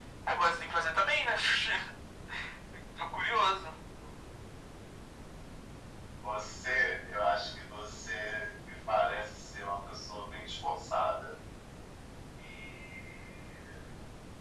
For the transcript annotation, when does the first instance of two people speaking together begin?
none

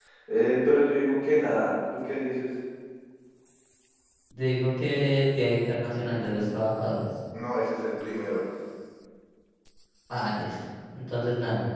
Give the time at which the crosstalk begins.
none

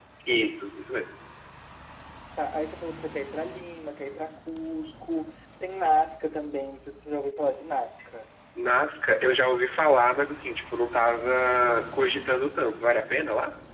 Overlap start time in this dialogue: none

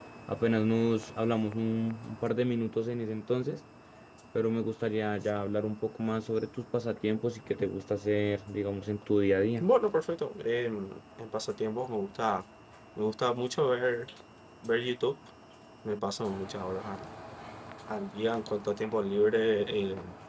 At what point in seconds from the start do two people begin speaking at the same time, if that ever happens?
none

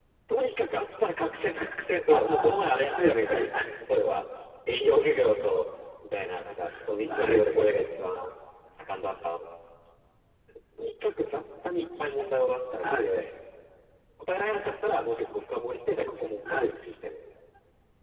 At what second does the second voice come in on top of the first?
2.1 s

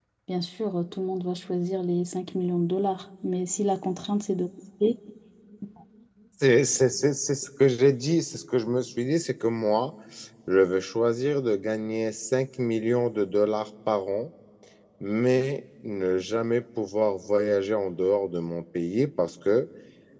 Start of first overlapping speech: none

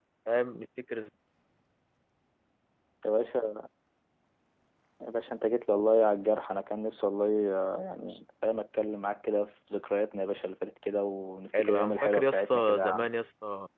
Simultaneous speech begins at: 11.5 s

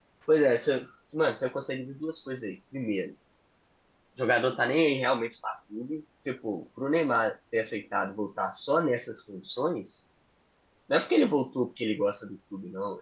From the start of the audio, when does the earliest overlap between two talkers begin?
none

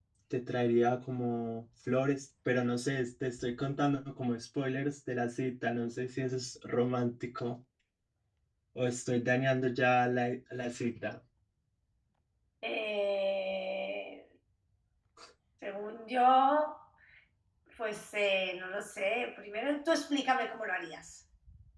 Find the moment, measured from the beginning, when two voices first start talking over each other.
none

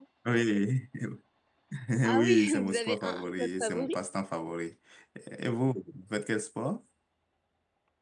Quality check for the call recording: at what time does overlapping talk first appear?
2.1 s

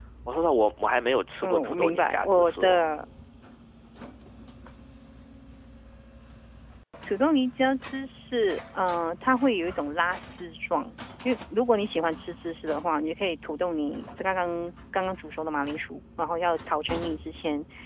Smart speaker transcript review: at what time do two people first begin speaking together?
1.4 s

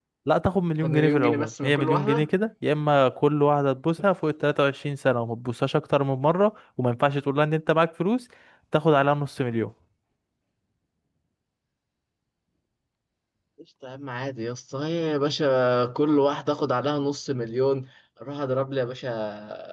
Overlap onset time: 0.8 s

